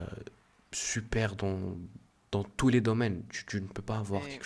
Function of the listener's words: taking over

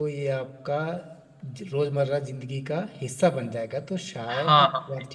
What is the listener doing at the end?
taking over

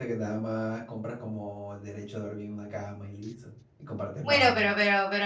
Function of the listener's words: taking over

